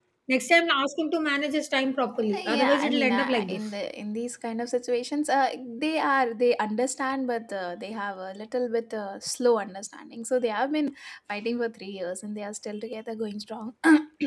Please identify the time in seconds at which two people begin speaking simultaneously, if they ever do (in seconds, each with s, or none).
2.3 s